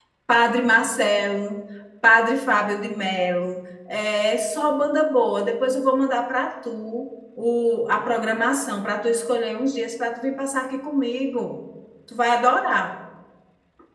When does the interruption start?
none

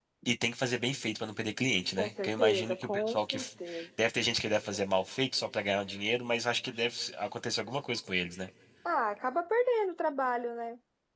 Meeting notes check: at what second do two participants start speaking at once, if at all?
2.0 s

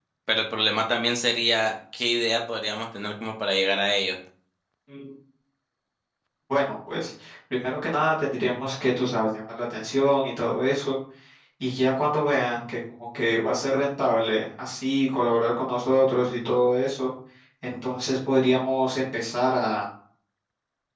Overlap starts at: none

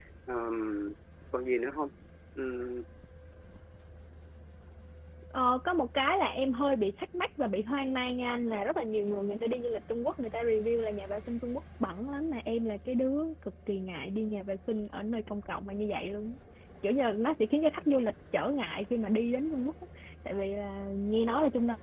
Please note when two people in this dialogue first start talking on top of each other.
none

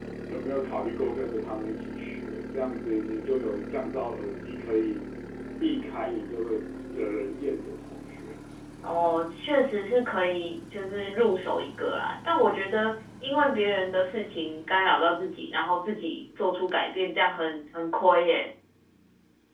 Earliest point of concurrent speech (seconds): none

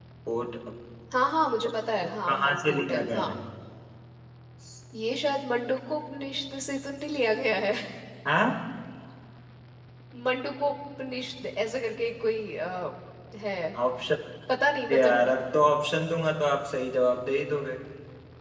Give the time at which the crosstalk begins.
2.0 s

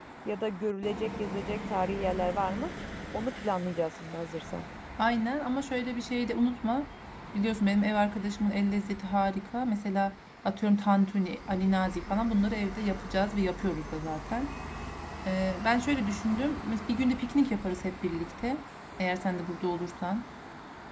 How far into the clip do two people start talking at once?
none

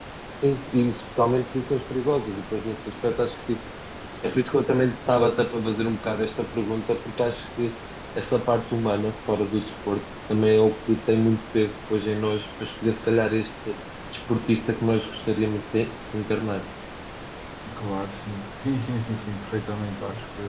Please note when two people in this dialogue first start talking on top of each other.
none

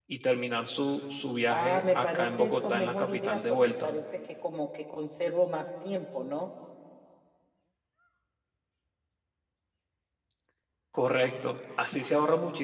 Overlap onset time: 1.5 s

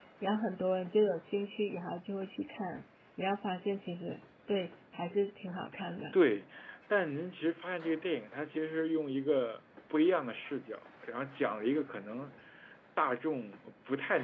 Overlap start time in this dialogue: none

